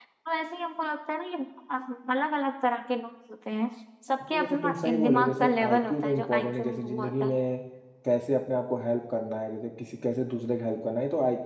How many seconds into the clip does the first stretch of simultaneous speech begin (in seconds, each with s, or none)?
4.4 s